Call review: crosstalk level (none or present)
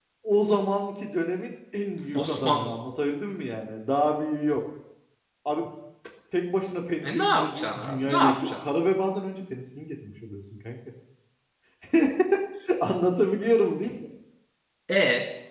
present